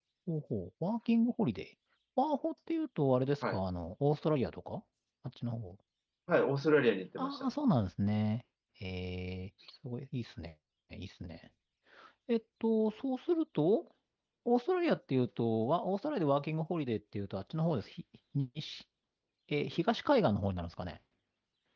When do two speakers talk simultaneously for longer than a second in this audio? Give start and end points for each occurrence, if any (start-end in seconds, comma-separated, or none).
none